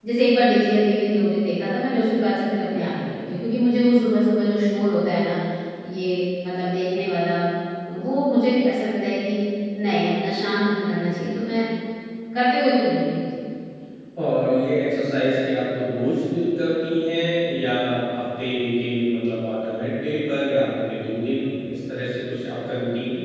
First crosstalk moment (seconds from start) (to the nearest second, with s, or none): none